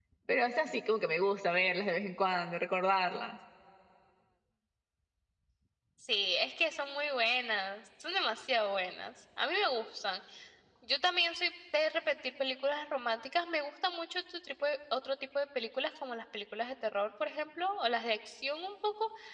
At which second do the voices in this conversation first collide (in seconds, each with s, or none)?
none